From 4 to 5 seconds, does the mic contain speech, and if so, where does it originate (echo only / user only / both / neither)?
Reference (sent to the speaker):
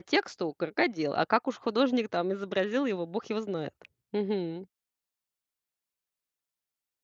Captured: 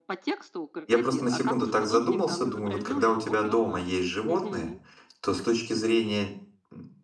both